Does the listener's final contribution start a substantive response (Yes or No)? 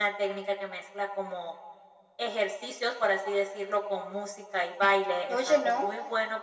No